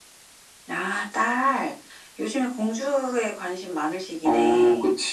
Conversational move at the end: taking over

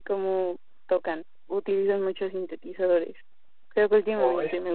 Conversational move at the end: listening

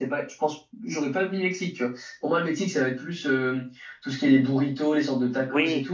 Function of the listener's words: listening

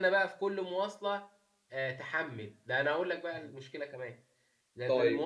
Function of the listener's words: listening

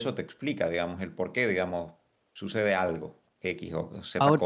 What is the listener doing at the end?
listening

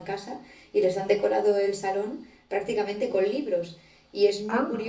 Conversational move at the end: listening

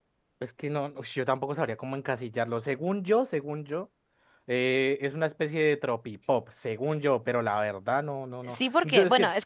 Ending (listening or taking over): taking over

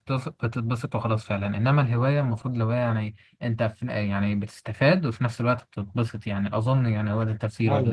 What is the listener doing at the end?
taking over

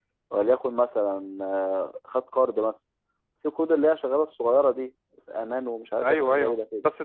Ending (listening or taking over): taking over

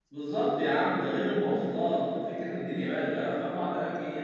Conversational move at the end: listening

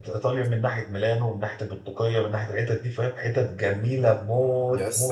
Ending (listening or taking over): taking over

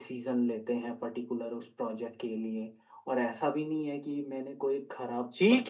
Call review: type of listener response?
taking over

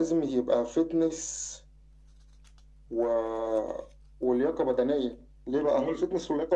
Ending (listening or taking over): listening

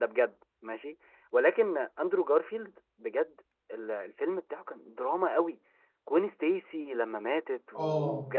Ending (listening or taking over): listening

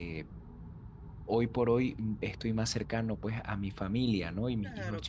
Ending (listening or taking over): listening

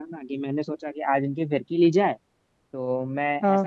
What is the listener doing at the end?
listening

